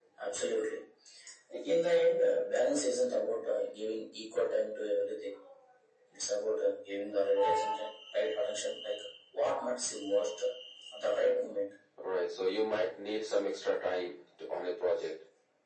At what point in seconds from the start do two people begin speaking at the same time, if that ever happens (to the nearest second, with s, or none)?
none